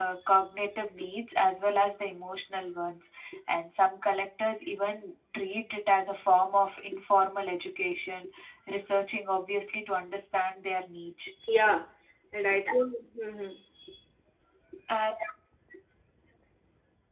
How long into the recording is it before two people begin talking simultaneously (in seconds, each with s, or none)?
none